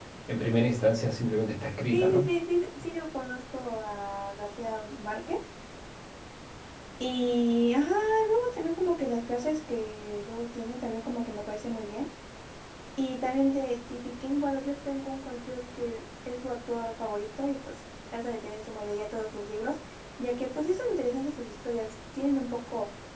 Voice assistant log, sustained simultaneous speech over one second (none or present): none